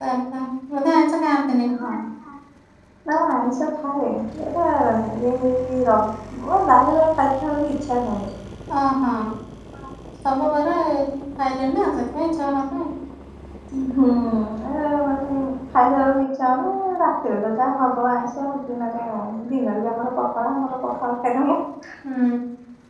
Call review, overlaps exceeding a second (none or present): none